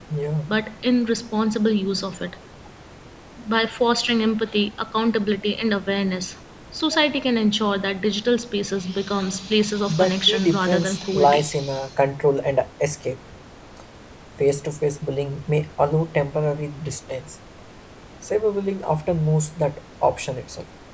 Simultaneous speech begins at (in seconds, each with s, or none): 9.8 s